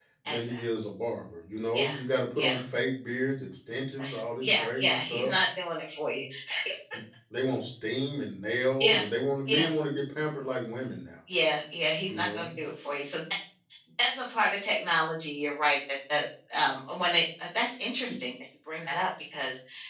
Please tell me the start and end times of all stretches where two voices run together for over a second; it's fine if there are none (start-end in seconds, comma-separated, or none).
4.0-5.3